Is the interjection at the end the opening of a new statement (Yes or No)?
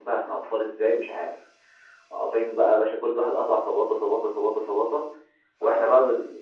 No